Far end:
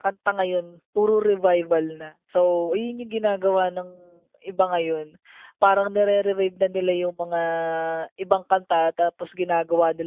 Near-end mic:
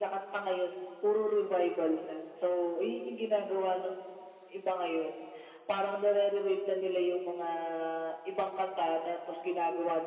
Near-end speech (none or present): none